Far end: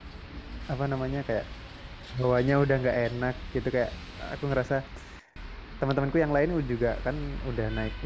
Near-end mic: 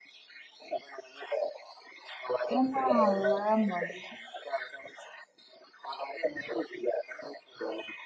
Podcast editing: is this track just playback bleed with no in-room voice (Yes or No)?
No